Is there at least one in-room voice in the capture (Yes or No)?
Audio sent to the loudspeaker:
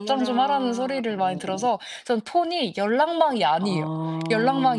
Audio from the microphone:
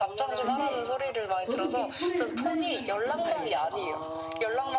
Yes